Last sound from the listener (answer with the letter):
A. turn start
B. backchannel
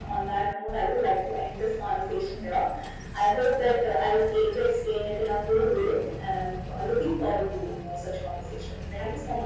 A